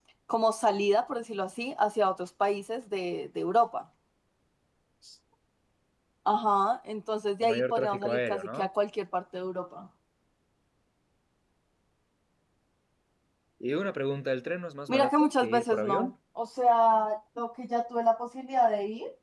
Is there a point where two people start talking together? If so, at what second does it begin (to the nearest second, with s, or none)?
7 s